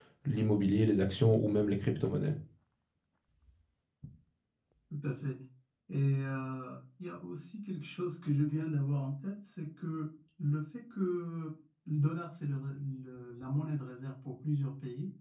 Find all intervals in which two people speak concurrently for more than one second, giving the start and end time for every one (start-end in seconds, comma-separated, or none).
none